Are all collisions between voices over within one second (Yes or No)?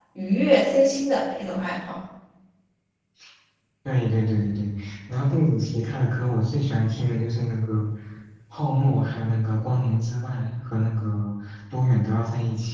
Yes